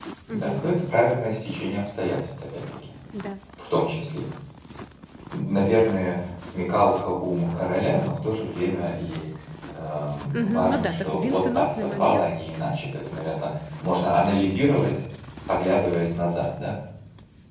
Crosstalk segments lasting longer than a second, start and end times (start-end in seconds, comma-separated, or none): 10.4-12.3